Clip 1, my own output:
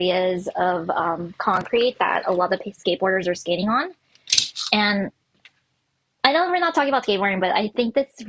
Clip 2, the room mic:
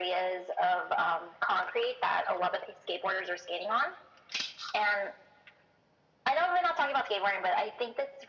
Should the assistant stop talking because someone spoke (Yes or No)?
No